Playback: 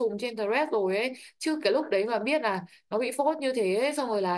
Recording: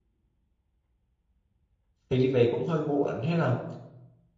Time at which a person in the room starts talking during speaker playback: 2.1 s

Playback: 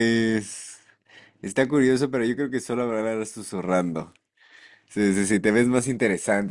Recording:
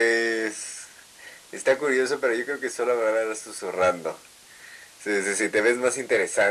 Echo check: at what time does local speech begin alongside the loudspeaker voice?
none

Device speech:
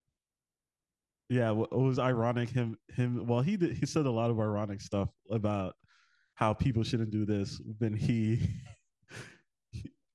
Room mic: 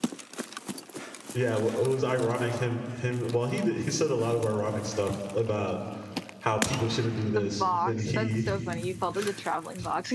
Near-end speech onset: 7.3 s

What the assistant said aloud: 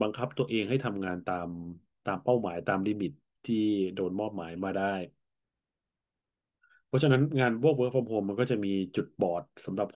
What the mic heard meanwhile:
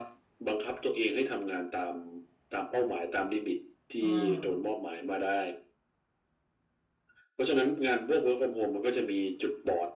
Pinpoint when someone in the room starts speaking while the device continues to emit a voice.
4.0 s

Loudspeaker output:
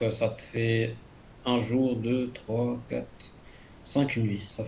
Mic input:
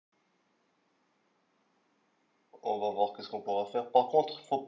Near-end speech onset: 2.6 s

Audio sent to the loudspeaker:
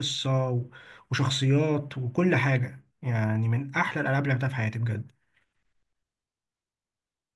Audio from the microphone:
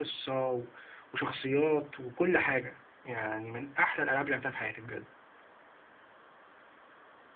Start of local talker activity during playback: none

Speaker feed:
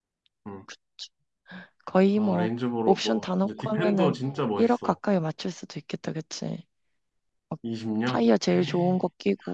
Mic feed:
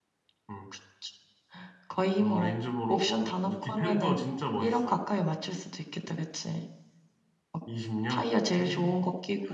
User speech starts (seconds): none

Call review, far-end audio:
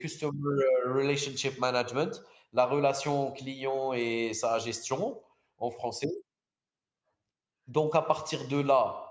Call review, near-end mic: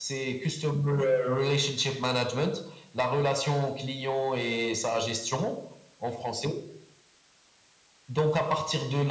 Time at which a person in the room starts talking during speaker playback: none

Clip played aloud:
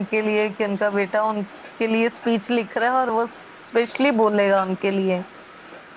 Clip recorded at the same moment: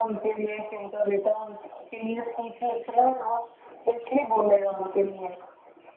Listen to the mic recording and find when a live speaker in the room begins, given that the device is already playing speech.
none

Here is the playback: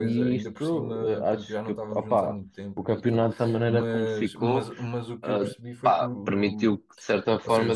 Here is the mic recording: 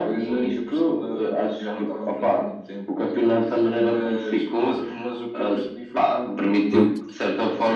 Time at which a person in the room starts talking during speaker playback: 6.7 s

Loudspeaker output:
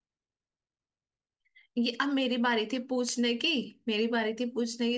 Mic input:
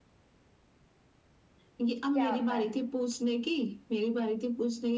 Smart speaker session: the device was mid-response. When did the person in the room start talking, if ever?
2.1 s

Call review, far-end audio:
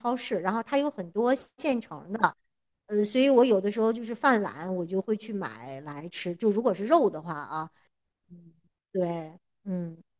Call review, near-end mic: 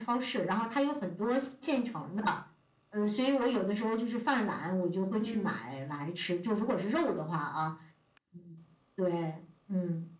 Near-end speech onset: 5.1 s

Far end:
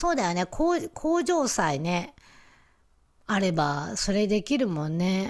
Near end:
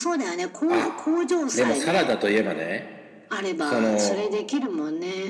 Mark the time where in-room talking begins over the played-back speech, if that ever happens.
0.7 s

